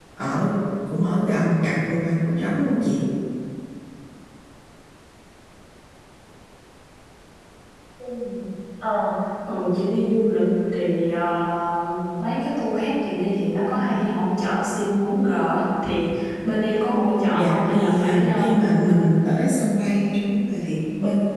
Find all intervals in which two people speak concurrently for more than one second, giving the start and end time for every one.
17.3-19.0

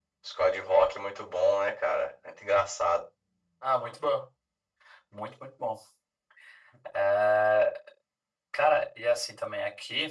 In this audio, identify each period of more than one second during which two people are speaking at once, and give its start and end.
none

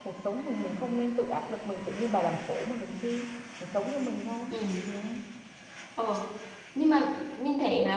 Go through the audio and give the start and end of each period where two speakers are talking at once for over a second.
none

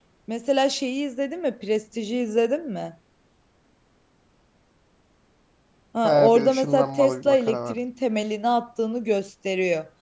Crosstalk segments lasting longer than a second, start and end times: 6.0-7.8

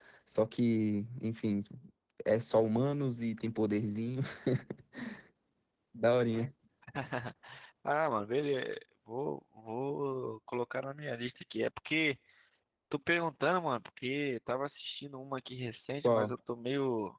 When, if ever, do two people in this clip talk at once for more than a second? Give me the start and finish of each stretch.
none

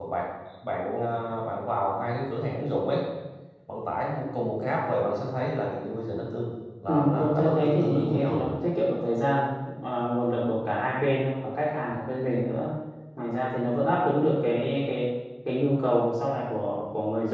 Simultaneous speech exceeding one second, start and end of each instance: 6.9-8.5

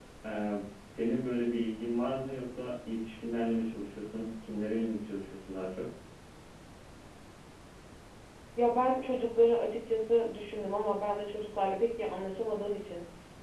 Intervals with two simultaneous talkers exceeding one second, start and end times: none

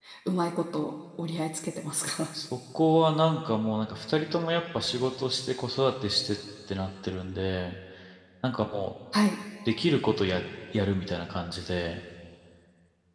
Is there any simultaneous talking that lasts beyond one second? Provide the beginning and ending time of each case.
none

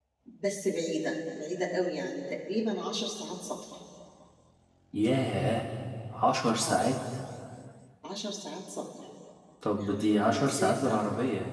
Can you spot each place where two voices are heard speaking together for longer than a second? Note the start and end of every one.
9.8-11.0

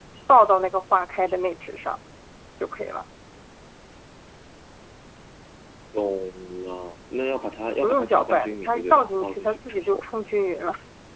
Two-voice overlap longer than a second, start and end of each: 7.8-10.0

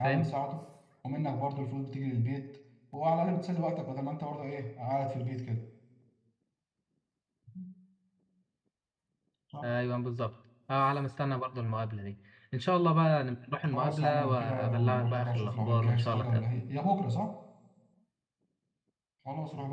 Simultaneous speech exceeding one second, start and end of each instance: 13.7-16.5

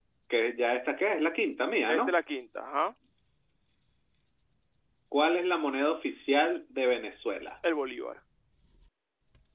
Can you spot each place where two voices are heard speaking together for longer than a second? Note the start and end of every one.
none

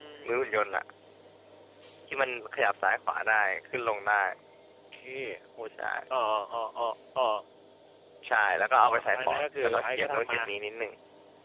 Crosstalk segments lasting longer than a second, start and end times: 8.8-10.4

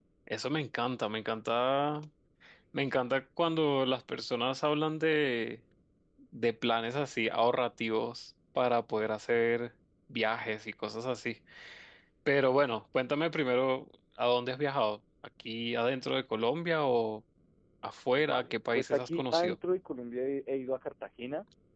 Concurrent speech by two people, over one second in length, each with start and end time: 18.2-19.6

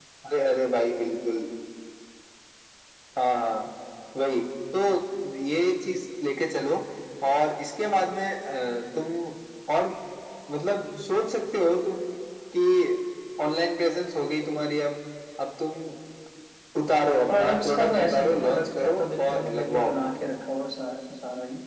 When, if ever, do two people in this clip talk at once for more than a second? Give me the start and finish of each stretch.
17.3-19.9

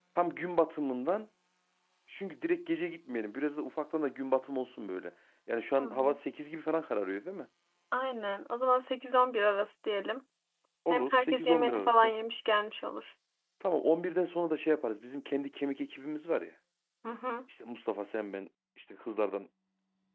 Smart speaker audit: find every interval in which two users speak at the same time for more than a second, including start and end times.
10.9-12.1

